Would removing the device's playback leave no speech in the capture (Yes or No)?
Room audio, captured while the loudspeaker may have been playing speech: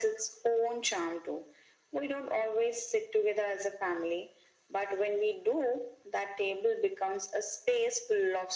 Yes